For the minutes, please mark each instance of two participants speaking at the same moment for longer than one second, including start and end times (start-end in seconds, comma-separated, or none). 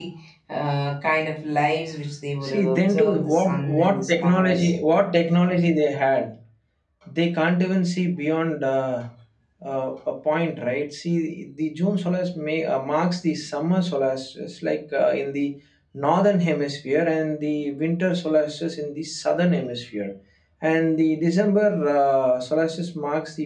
2.4-4.7